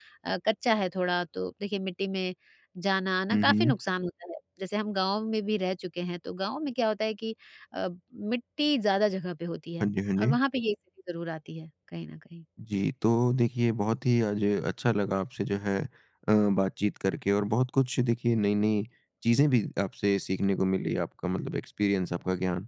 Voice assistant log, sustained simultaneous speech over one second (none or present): none